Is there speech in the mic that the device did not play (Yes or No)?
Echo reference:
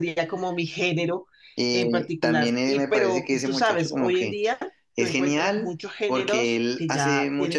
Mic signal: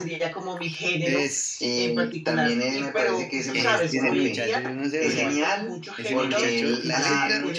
Yes